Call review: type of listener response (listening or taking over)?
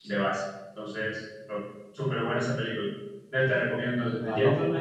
listening